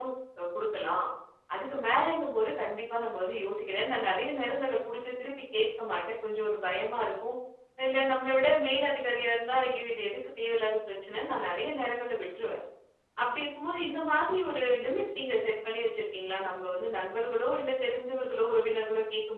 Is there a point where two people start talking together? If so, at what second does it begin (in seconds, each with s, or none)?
none